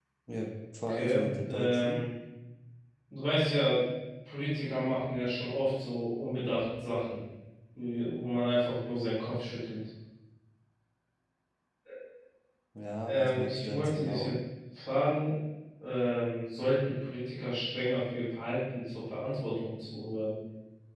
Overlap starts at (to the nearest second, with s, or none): 1 s